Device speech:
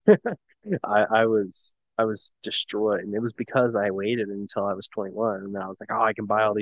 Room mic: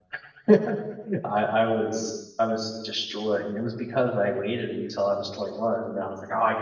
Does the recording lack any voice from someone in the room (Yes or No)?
Yes